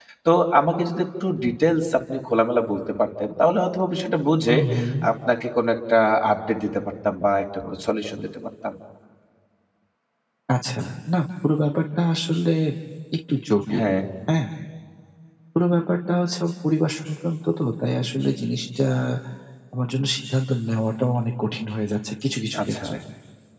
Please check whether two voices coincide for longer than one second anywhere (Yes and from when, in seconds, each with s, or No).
No